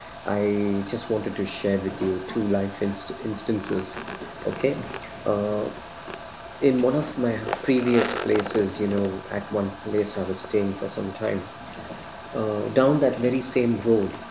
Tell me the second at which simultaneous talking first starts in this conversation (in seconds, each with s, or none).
none